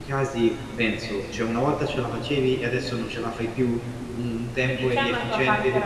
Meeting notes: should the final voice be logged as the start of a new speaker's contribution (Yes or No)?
Yes